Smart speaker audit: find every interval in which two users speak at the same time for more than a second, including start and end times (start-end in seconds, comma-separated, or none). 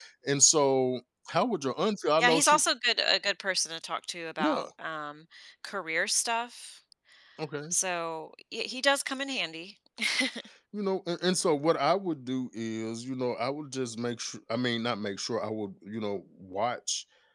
none